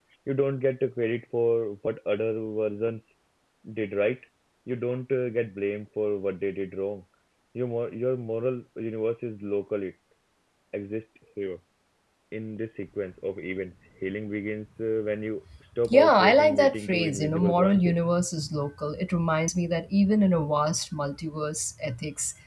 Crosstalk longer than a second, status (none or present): present